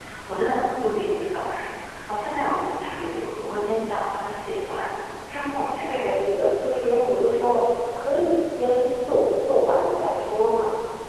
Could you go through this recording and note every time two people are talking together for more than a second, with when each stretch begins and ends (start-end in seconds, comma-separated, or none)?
none